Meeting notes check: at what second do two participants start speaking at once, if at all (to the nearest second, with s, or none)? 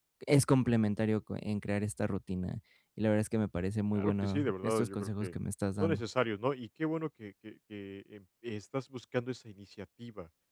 4 s